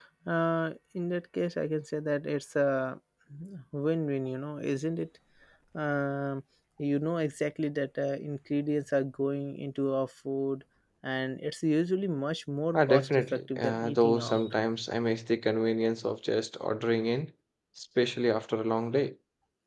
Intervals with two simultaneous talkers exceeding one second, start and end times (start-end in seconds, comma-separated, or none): 12.7-14.4